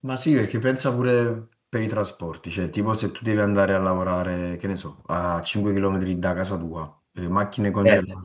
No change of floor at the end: Yes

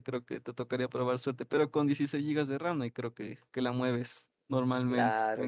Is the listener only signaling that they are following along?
No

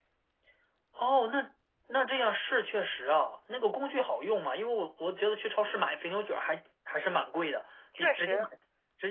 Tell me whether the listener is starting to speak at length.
No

